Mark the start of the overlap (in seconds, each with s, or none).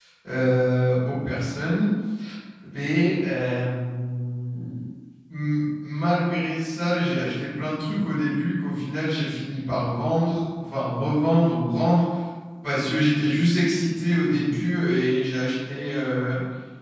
none